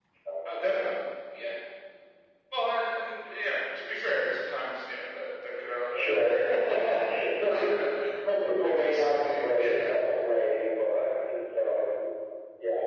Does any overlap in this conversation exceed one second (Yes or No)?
Yes